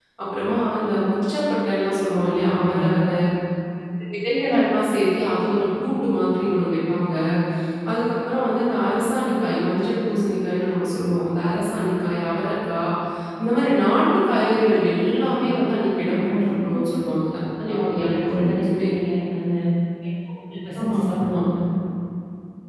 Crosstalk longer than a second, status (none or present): present